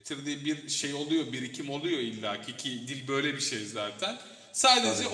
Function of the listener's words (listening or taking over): listening